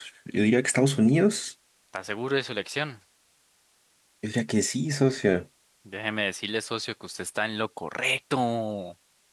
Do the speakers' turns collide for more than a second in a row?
No

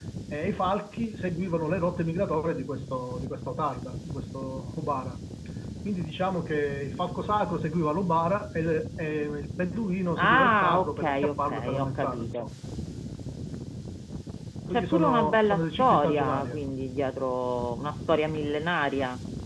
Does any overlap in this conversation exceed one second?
Yes, from 10.2 s

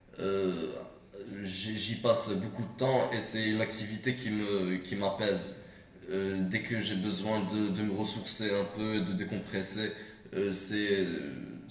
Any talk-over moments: No

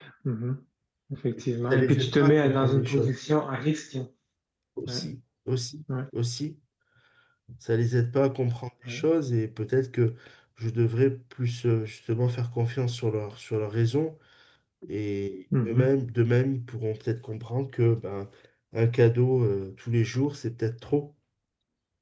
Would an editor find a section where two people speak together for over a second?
Yes, from 1.7 s

